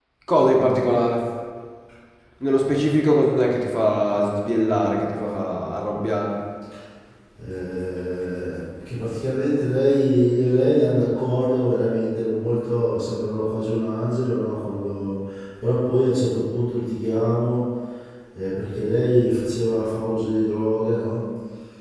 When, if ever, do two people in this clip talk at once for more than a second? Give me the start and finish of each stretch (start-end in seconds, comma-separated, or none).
none